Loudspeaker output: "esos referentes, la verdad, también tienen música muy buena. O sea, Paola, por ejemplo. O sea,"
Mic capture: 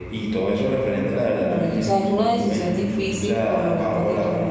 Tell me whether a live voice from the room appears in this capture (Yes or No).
Yes